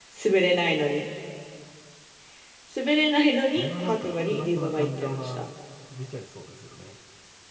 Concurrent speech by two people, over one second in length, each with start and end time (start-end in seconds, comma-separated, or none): 3.5-5.4